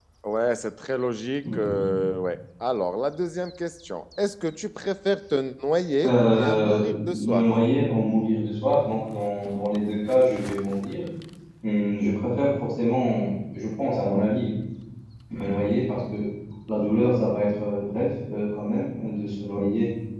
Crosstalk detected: Yes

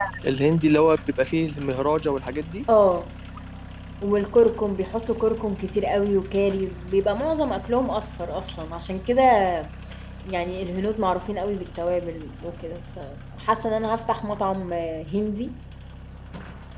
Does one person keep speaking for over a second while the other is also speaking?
No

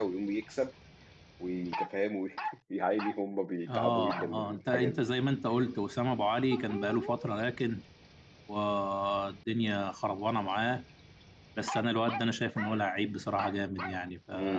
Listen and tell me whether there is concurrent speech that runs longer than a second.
Yes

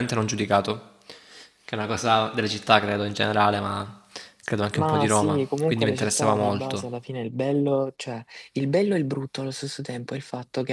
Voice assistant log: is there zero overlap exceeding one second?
No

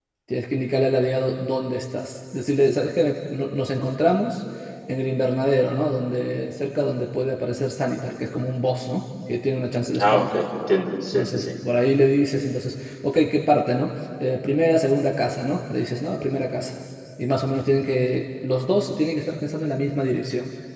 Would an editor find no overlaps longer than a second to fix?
Yes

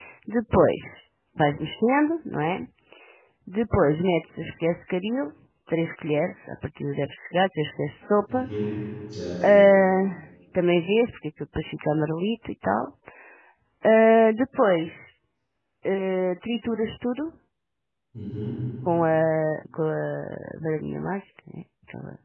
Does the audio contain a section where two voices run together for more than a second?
No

